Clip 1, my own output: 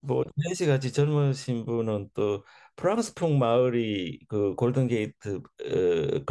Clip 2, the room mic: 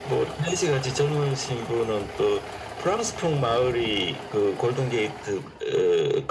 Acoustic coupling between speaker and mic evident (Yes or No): Yes